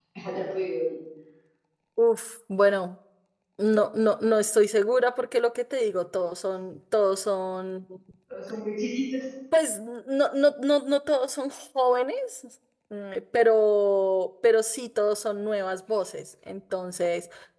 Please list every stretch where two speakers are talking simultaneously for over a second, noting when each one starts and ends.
none

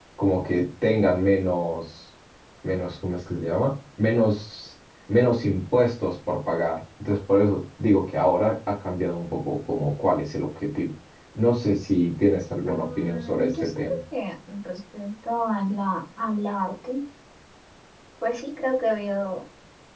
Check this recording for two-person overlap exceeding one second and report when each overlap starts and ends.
12.7-14.0

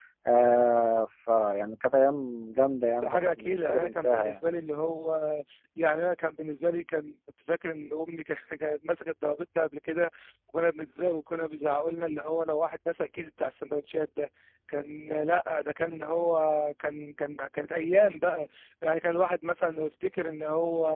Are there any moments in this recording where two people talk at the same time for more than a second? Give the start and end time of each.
3.0-4.3

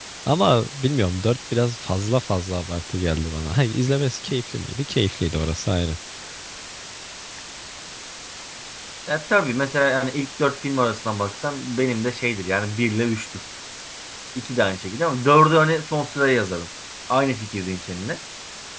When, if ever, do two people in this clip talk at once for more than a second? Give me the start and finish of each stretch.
none

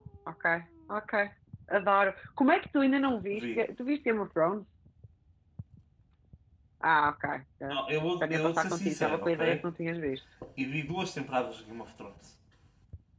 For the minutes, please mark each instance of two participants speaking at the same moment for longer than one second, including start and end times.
8.2-9.6

